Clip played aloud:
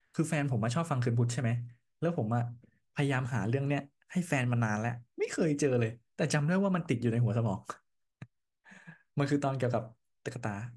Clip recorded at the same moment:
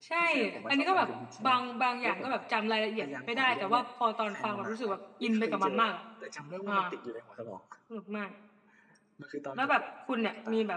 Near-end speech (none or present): present